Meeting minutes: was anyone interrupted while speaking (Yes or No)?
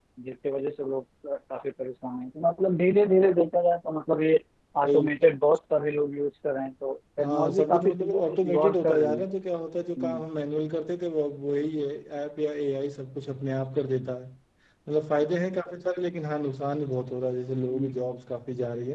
Yes